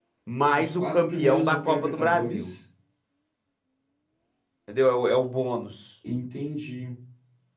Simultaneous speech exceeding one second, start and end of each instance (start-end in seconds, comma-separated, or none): 0.6-2.5